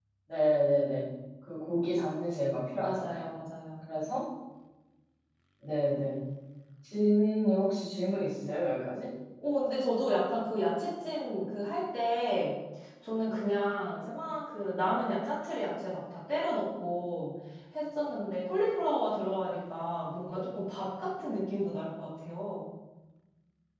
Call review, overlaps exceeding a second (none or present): none